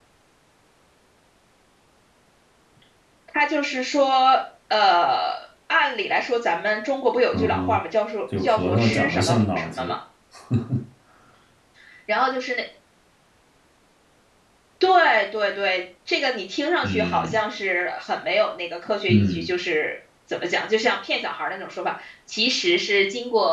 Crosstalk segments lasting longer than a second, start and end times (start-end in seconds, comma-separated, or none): 8.4-9.9